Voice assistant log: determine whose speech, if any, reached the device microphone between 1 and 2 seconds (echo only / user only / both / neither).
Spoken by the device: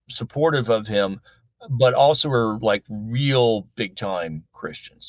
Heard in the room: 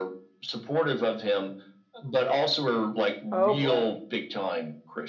echo only